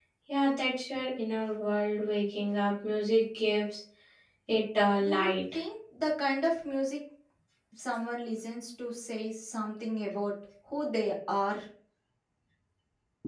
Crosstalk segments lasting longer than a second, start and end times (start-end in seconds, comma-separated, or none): none